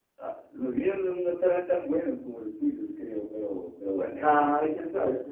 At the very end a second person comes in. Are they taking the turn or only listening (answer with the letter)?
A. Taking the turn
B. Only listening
A